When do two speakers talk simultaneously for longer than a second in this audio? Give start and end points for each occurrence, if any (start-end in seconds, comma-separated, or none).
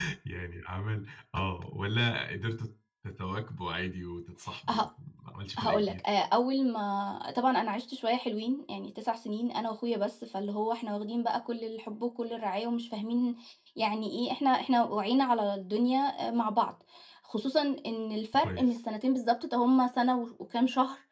none